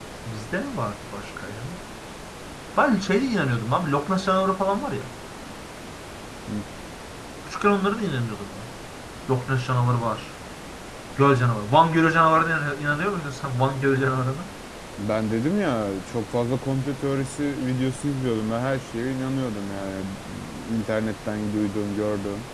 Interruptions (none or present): none